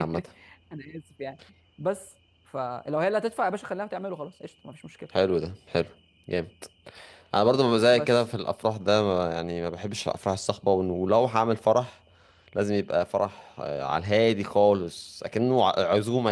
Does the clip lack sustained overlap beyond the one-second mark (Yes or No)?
Yes